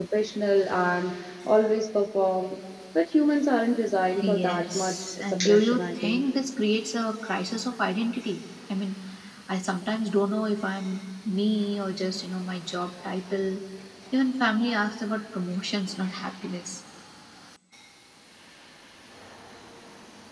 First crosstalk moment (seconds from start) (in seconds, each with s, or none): 4.2 s